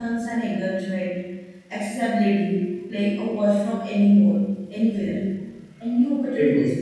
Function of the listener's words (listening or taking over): listening